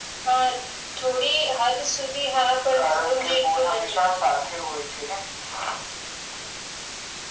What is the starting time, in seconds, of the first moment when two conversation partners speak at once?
3 s

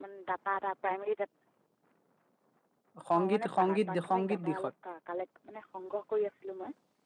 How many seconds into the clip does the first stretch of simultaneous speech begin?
3 s

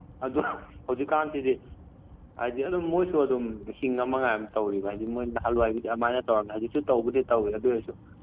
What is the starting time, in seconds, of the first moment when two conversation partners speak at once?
none

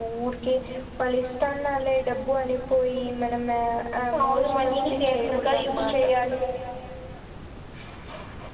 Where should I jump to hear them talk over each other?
4 s

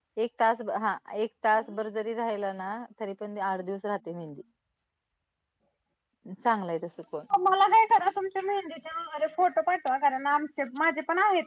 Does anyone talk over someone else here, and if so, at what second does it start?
none

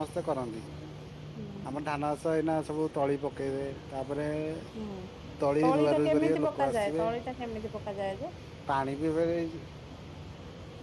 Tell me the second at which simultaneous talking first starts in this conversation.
6 s

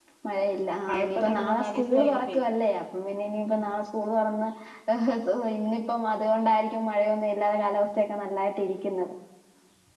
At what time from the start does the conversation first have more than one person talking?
1 s

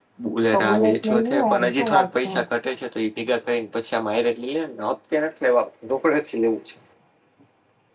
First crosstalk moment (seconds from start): 1 s

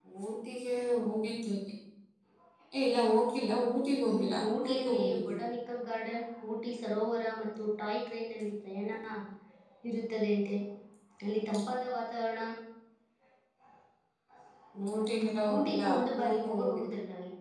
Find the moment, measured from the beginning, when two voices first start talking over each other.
4 s

